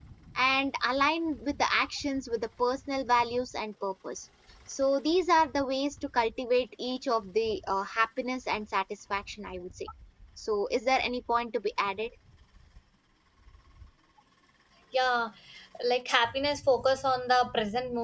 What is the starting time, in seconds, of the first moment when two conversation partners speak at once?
none

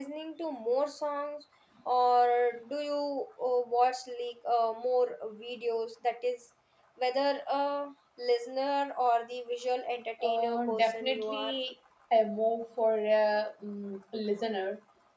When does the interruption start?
10.2 s

